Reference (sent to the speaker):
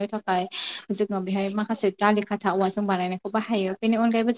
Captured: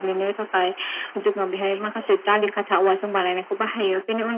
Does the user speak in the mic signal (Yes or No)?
No